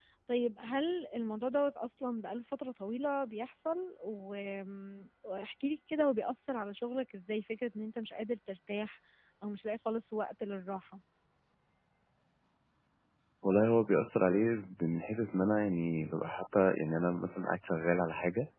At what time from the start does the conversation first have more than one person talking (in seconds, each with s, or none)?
none